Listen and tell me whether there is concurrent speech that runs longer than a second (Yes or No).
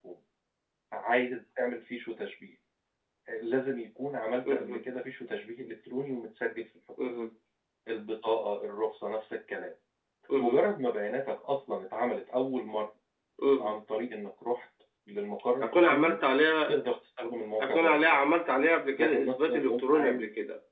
Yes